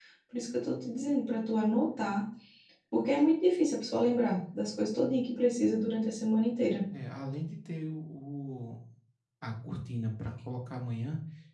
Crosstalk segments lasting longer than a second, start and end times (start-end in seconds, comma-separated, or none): none